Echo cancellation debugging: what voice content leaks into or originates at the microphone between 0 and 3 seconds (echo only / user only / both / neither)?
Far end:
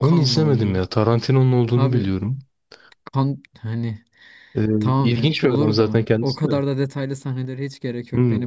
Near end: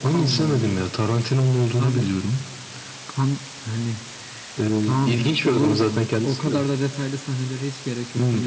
echo only